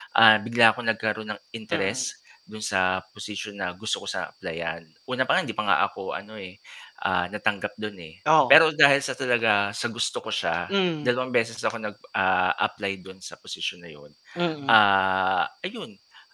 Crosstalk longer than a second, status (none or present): none